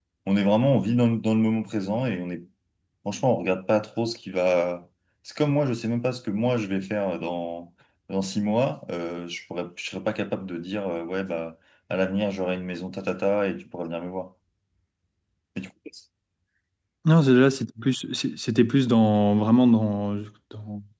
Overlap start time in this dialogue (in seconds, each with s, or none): none